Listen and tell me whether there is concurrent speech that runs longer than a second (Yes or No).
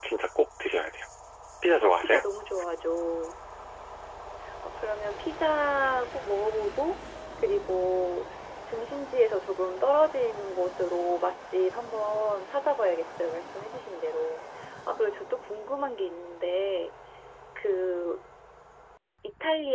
No